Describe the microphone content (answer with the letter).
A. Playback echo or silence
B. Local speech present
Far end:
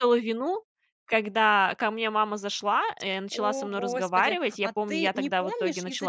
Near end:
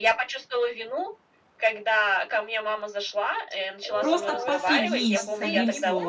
B